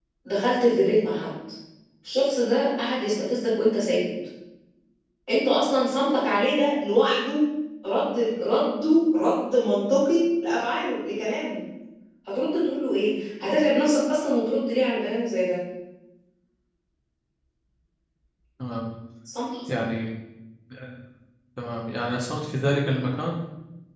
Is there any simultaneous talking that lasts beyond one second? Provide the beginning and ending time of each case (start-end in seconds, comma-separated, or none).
none